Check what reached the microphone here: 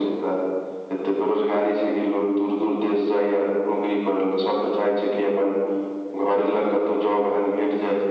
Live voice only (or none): none